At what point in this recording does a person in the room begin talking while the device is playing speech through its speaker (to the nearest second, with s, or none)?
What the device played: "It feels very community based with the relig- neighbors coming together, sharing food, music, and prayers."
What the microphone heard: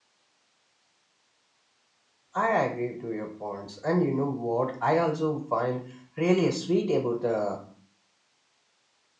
2 s